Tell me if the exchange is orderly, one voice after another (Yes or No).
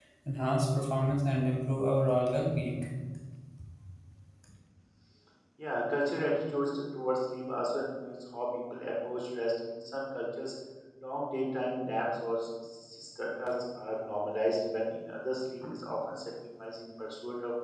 Yes